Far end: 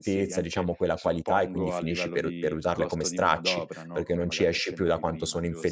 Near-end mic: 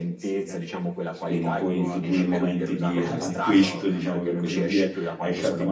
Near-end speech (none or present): present